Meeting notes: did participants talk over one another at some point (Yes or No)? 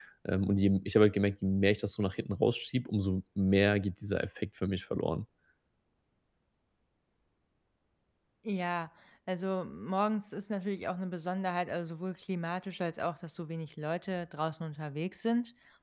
No